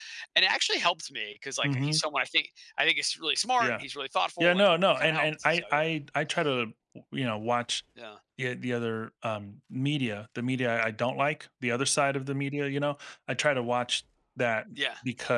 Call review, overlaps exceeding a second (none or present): present